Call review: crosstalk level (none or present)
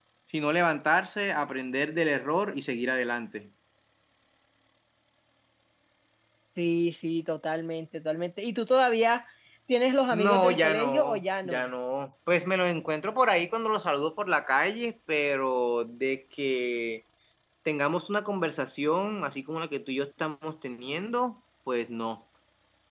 present